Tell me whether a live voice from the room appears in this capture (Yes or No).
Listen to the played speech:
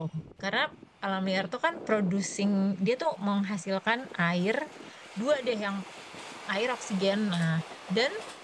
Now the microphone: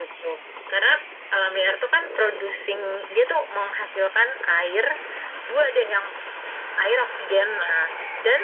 No